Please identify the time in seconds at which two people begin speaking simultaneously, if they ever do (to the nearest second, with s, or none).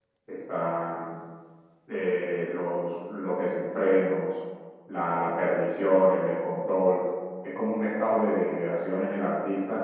none